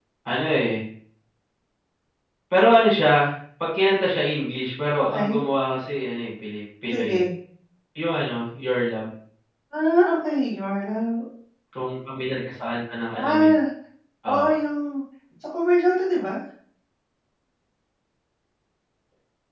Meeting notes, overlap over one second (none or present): none